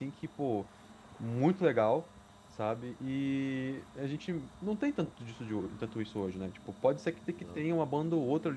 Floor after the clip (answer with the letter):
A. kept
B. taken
A